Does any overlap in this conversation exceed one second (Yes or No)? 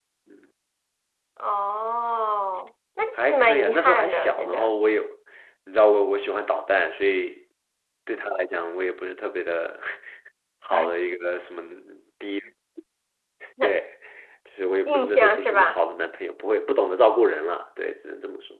Yes